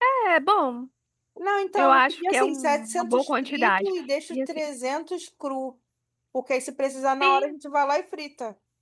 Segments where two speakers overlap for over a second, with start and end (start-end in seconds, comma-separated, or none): 1.8-3.9